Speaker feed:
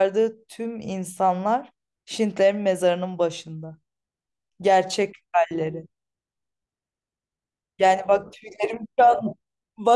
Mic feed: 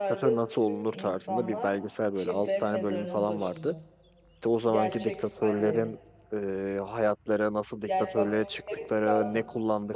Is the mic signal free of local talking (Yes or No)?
No